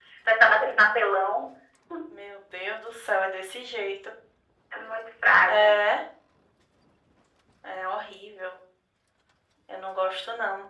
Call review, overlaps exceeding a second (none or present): none